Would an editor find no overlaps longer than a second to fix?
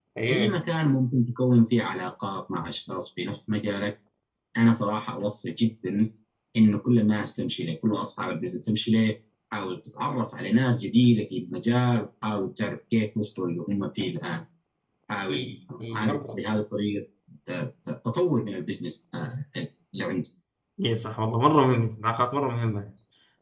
Yes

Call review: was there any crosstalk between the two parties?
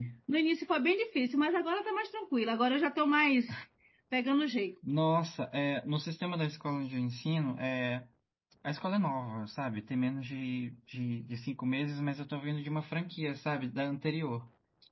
No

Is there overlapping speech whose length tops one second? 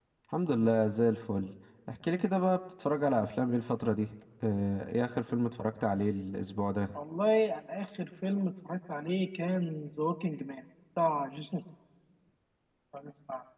No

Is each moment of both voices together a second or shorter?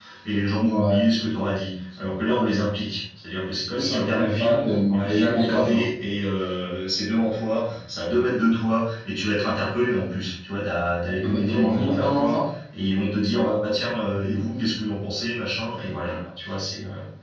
No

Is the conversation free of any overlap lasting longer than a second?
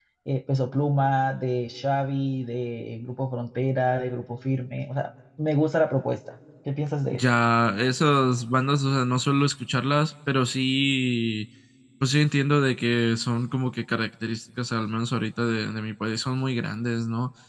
Yes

